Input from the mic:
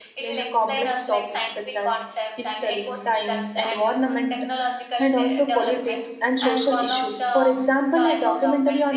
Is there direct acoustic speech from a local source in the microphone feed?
Yes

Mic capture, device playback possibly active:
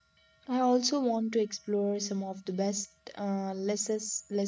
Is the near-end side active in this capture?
Yes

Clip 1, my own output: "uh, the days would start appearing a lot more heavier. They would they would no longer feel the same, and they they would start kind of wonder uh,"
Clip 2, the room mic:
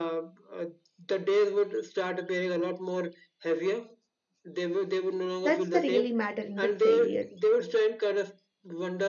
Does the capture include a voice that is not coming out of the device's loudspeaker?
Yes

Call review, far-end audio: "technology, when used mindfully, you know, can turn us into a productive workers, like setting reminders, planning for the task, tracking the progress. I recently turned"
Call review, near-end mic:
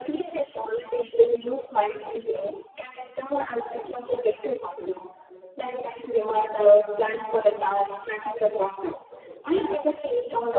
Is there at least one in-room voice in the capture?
No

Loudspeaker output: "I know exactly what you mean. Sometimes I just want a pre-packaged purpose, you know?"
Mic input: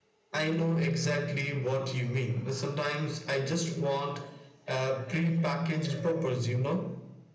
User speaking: No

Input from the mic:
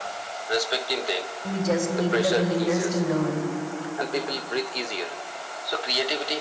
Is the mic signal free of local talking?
No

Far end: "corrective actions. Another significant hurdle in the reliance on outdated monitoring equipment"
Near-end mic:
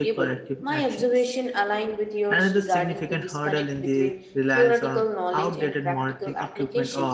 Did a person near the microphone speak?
Yes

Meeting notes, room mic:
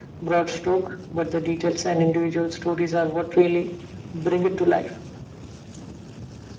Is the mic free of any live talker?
Yes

